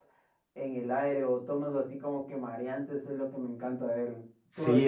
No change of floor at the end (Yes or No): No